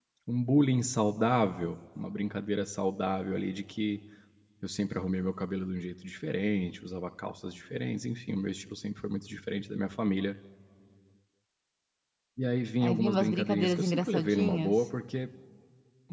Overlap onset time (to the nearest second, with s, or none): 13 s